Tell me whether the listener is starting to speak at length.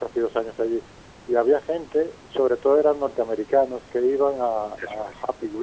No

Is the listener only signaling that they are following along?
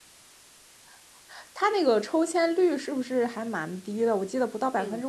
No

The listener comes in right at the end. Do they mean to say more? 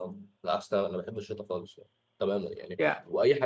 No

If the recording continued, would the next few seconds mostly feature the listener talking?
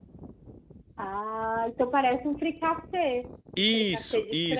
Yes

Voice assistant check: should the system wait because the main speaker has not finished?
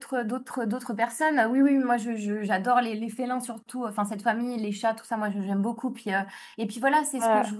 Yes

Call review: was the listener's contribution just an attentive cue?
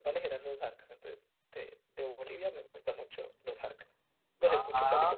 No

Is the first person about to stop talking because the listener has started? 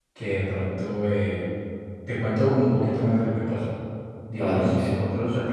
No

